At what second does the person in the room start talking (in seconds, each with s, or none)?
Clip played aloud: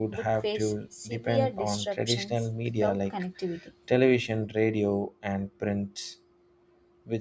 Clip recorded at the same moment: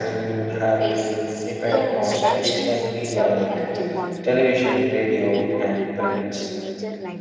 1.7 s